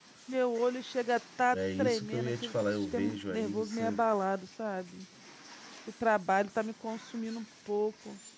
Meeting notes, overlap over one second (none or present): present